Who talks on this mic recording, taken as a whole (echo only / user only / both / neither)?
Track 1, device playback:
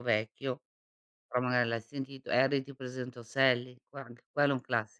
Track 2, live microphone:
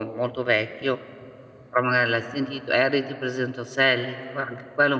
echo only